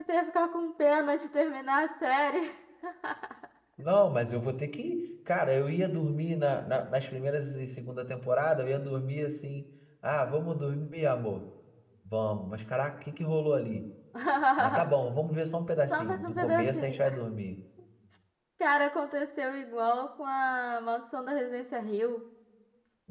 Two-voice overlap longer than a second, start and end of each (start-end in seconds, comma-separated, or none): 15.9-17.2